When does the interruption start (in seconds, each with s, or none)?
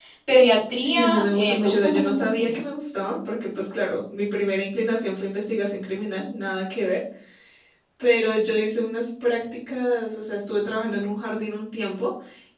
0.7 s